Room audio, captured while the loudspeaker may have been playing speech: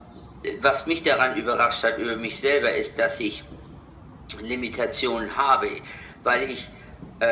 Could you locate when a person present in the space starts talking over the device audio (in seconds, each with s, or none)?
none